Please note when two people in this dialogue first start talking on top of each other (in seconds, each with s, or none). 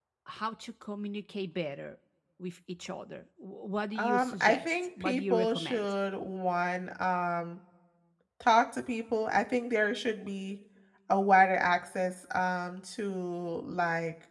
4.0 s